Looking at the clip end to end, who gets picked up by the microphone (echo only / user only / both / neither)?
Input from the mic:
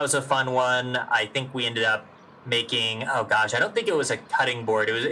echo only